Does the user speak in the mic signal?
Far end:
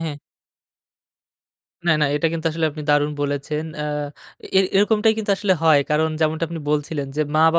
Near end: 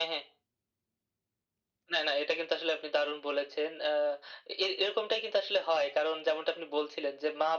No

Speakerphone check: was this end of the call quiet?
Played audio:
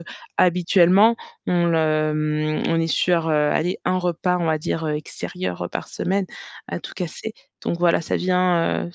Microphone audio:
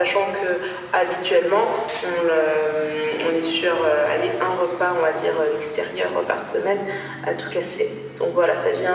Yes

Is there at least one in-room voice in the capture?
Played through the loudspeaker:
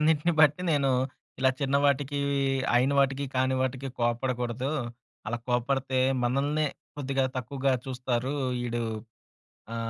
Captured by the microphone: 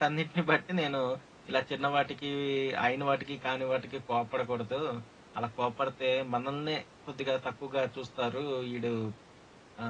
No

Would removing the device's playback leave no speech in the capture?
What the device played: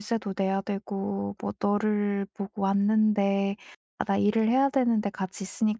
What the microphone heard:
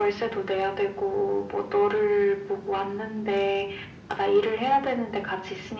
Yes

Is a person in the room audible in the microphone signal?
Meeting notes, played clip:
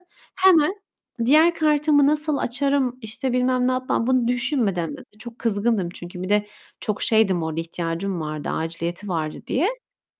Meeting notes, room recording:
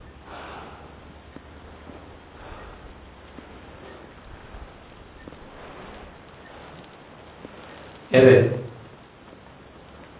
Yes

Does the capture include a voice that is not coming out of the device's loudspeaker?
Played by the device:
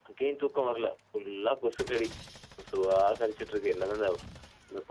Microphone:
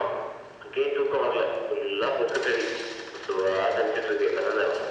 No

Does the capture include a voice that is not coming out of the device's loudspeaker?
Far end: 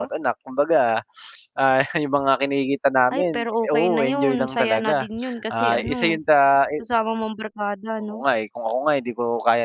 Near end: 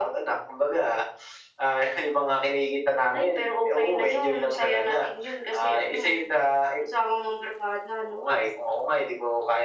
No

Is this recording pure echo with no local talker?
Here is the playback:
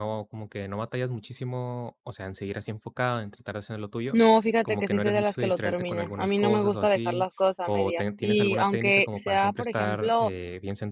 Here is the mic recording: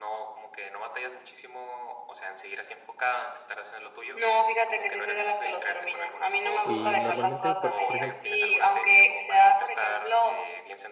No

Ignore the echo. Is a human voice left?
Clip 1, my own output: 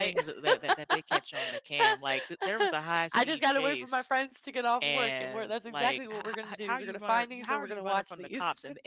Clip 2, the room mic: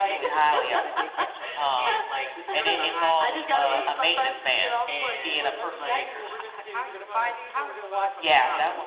Yes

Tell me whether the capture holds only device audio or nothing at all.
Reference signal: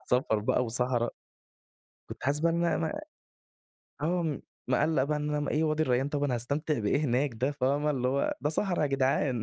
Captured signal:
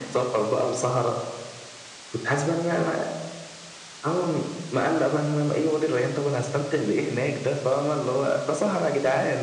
Yes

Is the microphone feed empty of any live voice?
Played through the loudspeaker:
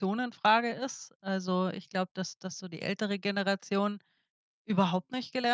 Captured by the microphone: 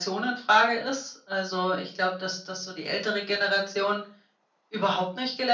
Yes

